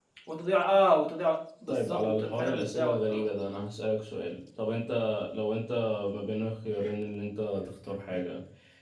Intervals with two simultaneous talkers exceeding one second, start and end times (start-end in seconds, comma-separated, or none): 1.7-3.2